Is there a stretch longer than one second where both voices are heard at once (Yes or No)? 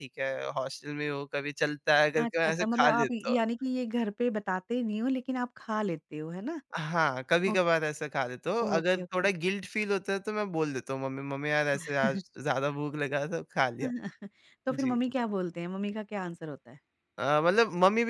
Yes